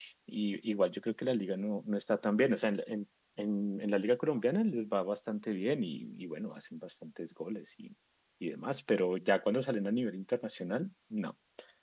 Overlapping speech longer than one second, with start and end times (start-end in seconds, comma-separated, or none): none